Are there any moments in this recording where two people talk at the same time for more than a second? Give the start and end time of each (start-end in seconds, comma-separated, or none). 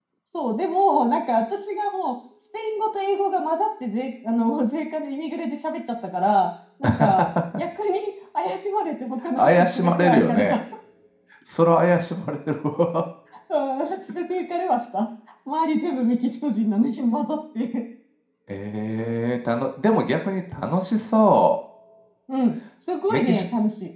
9.3-10.6